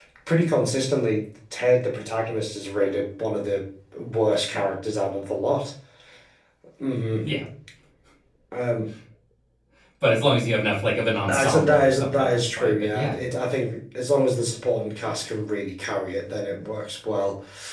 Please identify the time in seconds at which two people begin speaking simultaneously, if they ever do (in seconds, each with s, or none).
11.3 s